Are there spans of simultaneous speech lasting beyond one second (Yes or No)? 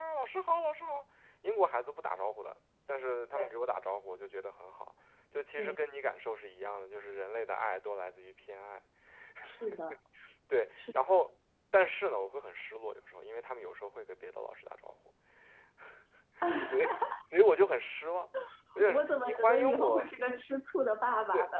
Yes